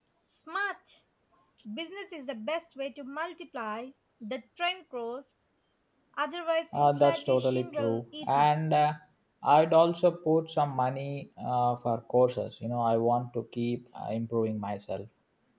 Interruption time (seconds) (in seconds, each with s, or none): 6.7 s